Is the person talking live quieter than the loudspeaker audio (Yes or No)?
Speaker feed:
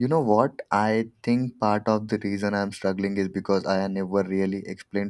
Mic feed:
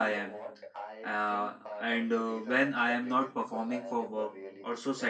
No